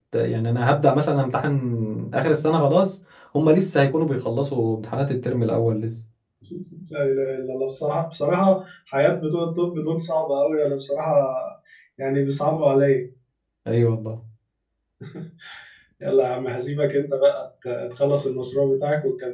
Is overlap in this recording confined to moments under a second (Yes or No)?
Yes